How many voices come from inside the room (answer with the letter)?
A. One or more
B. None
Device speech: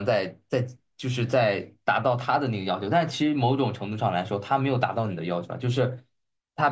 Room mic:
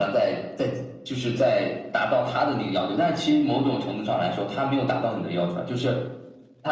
B